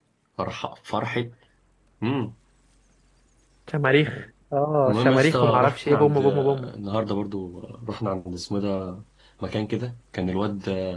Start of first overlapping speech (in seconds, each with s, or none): 4.9 s